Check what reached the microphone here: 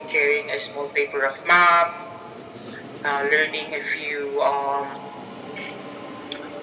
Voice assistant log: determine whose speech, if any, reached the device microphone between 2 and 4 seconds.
echo only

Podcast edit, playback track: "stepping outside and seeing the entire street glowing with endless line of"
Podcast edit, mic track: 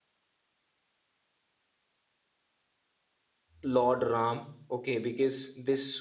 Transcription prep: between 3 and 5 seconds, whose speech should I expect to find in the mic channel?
user only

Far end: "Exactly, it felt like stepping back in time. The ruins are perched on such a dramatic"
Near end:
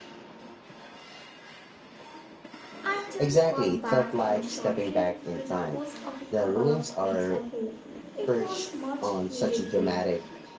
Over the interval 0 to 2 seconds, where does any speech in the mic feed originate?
neither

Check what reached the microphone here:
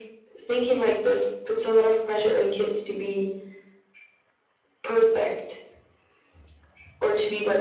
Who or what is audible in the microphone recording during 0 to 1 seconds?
echo only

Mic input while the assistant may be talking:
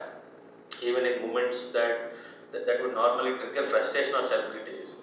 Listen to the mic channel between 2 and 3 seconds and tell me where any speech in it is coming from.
echo only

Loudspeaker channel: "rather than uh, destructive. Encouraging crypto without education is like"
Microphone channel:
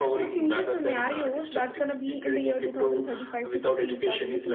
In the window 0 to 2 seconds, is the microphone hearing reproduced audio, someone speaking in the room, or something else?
both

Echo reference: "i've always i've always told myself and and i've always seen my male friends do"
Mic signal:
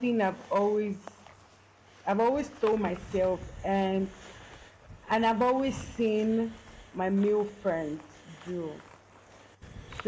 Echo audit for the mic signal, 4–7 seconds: echo only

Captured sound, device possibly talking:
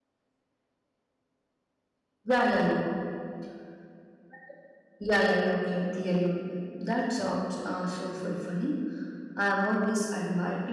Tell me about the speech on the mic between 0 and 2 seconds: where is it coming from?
neither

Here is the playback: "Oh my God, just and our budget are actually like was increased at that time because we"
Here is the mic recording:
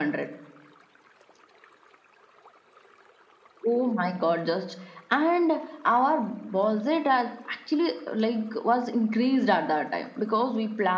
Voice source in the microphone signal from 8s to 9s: echo only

